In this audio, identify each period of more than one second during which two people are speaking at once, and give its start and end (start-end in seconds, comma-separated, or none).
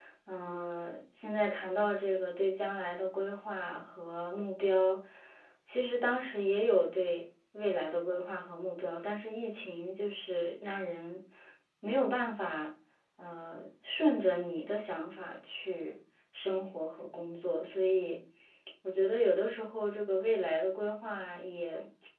none